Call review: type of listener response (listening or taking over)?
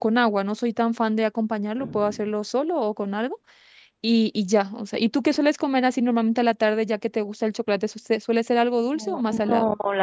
taking over